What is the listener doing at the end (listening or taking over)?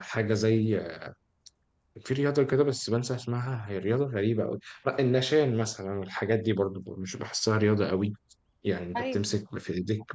listening